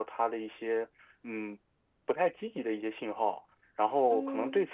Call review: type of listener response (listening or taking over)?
listening